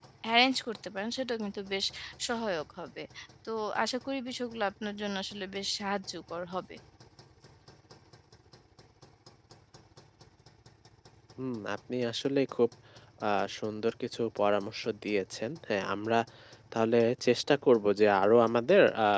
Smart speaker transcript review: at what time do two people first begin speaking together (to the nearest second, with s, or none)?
none